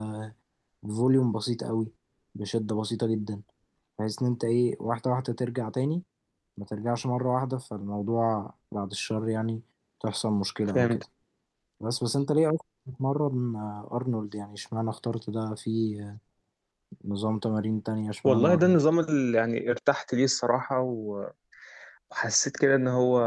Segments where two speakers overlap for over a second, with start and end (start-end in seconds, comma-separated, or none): none